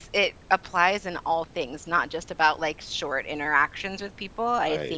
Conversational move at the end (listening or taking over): listening